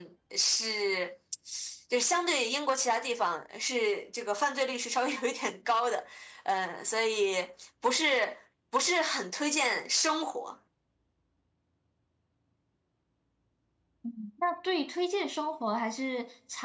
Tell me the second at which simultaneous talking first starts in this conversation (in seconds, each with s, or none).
none